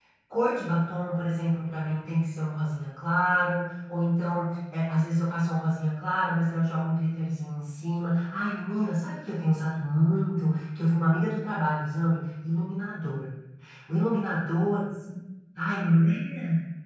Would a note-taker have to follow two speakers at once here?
No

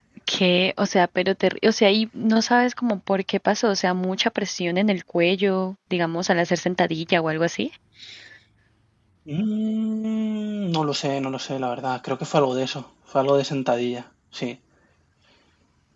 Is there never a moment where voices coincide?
Yes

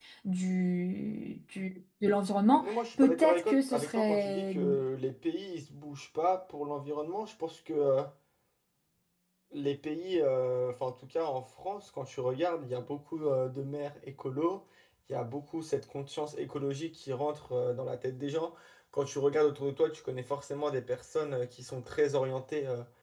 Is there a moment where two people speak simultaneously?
Yes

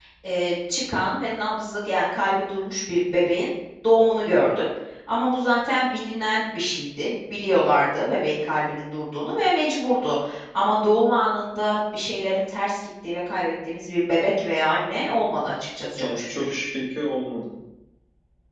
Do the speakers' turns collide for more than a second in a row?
No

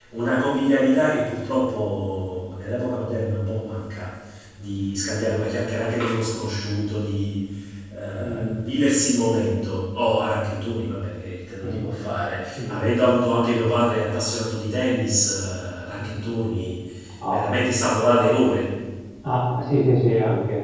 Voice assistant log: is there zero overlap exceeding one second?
Yes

